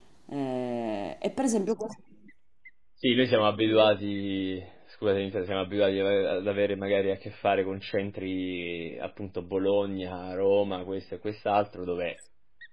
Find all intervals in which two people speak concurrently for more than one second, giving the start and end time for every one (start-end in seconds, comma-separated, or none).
none